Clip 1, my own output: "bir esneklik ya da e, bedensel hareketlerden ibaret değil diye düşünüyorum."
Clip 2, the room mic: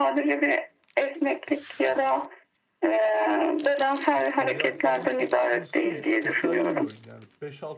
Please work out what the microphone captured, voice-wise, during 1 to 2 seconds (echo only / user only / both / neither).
echo only